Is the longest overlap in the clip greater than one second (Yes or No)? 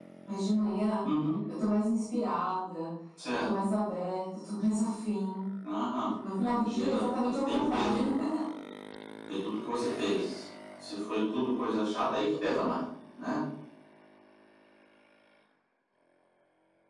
Yes